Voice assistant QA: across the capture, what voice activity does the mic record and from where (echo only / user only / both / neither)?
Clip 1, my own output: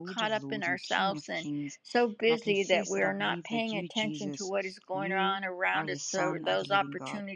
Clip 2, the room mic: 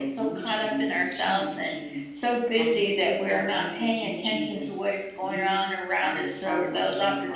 echo only